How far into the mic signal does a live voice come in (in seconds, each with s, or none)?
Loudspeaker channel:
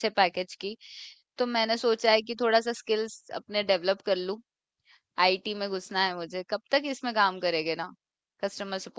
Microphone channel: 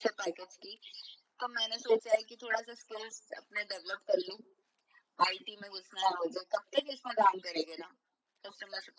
none